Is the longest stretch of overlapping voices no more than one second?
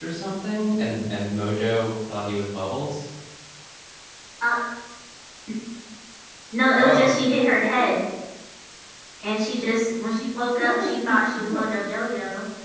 Yes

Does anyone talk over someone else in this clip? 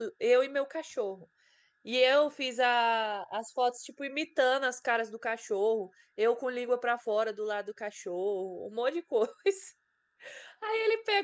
No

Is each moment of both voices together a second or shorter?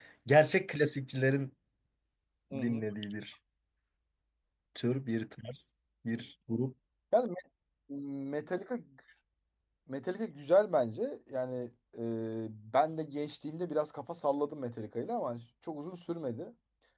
Yes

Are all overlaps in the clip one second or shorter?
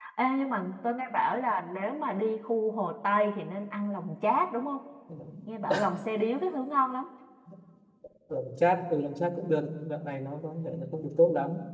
Yes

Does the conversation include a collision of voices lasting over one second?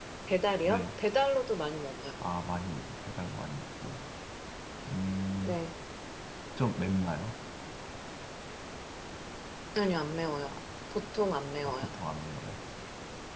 No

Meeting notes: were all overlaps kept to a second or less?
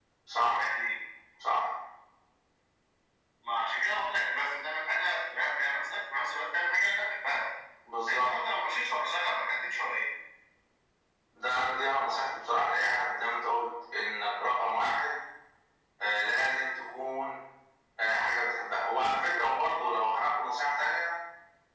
Yes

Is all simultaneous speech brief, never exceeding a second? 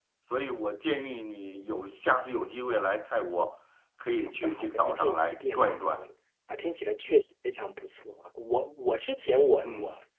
No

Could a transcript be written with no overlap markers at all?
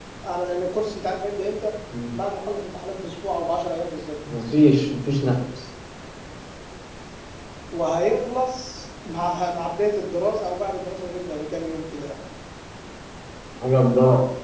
Yes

